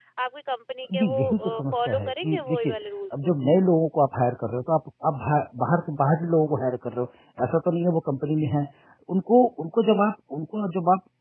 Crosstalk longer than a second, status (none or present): present